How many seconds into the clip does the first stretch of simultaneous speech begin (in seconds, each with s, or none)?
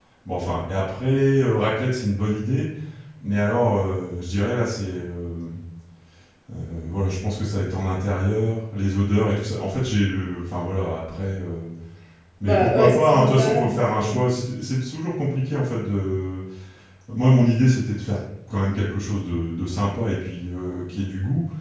12.4 s